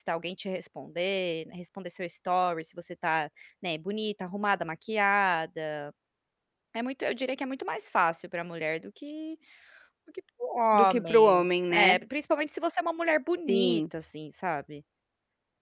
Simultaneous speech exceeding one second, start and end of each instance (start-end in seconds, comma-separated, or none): 10.8-12.0